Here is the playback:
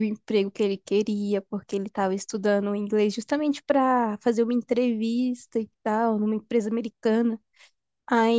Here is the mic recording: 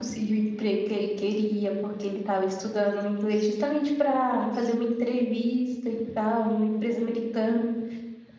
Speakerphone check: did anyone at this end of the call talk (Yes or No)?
No